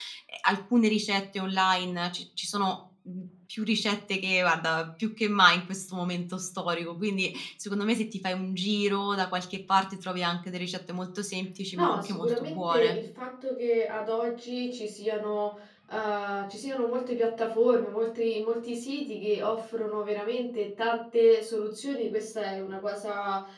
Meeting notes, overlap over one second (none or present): present